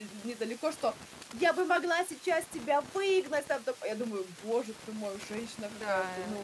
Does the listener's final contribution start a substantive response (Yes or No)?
Yes